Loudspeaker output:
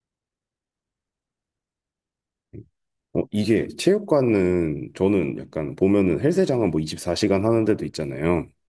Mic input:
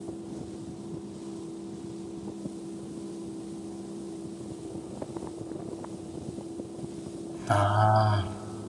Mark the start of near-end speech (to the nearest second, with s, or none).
7 s